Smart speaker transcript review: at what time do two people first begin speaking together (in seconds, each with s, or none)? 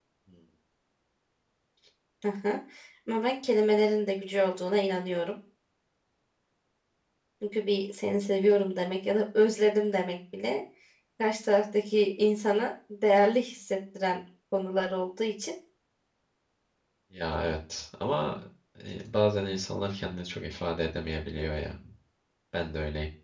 none